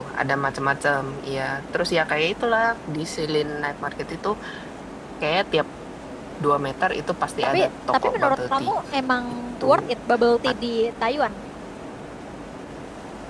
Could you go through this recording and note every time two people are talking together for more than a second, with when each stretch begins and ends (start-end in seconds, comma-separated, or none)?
7.4-8.7